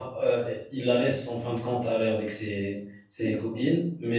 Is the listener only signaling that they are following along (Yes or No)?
Yes